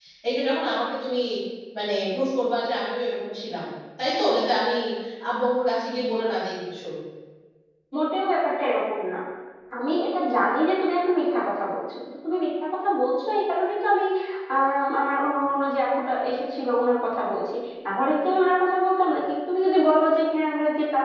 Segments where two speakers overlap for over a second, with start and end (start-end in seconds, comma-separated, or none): none